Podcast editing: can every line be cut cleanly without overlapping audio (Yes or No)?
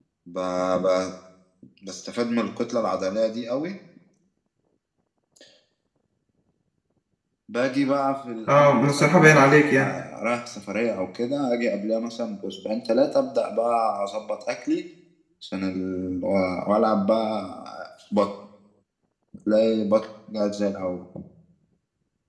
No